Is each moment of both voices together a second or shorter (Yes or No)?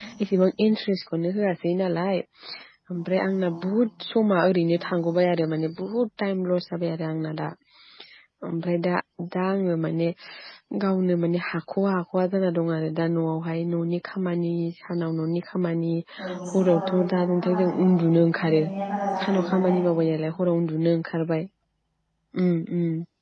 No